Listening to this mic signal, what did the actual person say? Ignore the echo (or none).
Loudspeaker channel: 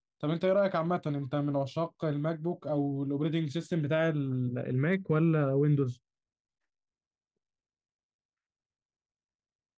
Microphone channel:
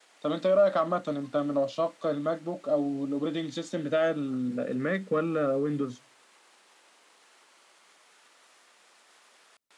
none